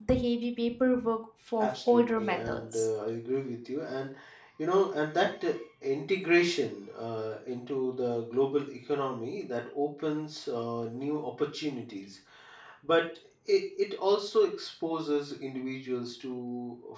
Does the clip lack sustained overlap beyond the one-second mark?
No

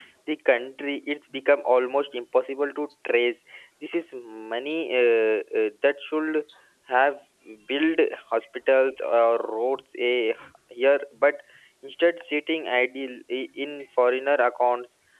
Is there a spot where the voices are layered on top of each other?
No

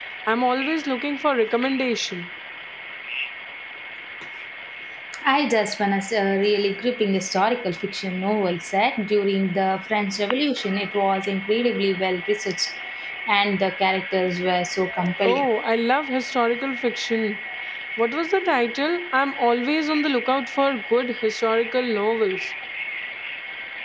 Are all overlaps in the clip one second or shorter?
Yes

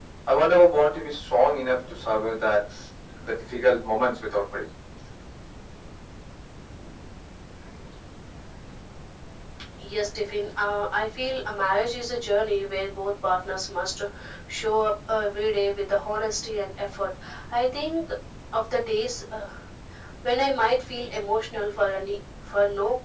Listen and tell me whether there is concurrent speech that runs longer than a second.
No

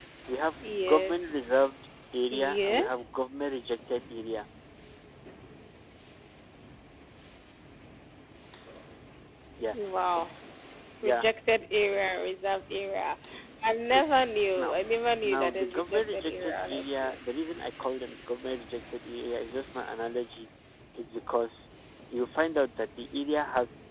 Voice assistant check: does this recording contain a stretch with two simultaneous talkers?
Yes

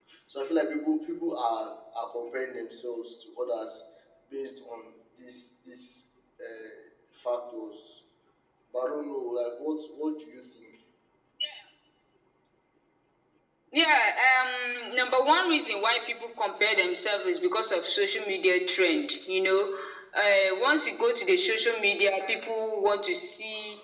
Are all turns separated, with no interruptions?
Yes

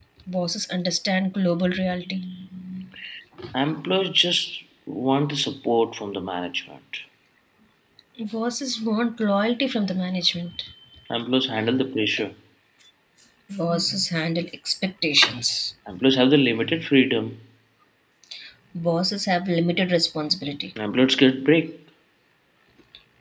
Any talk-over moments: No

